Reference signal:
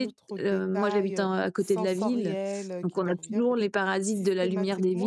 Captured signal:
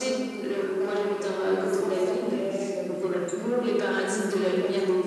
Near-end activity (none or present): none